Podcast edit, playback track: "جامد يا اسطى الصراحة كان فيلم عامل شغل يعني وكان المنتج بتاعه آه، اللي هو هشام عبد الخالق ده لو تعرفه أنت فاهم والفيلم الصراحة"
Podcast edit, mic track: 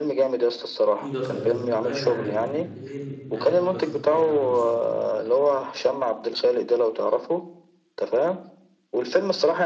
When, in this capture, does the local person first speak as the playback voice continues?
0.9 s

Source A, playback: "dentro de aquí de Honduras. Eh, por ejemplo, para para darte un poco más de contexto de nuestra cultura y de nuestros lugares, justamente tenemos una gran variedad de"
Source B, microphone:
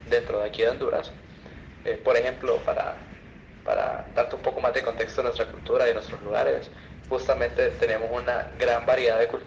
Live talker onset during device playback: none

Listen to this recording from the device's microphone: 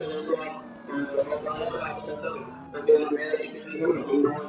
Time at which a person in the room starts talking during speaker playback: none

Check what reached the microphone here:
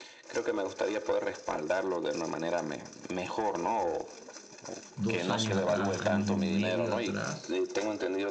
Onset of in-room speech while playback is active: 5.0 s

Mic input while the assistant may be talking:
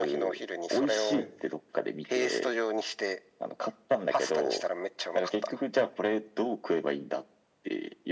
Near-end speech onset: 0.9 s

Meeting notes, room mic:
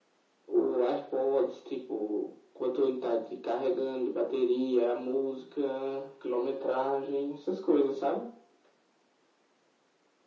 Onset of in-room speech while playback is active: none

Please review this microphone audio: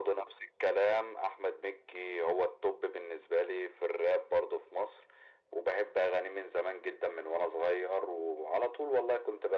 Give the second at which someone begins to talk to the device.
none

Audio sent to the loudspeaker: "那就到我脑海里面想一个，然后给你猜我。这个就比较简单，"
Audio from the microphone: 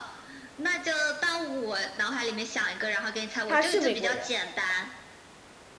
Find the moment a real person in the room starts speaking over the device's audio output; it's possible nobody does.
3.5 s

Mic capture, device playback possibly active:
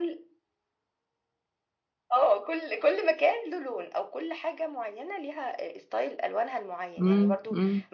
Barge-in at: 7.0 s

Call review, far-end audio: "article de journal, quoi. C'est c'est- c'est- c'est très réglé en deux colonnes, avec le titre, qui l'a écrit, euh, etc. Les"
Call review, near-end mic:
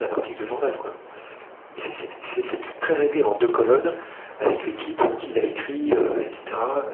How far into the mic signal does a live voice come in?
none

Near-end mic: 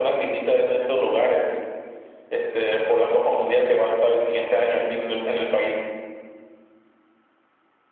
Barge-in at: none

